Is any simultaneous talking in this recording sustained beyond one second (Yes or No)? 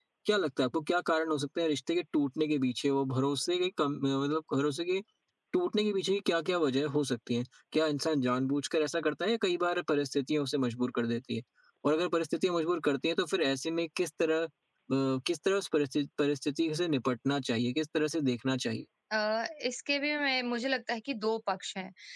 No